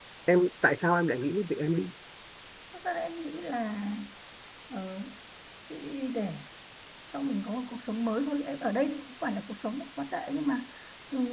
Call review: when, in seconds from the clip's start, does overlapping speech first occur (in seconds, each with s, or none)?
none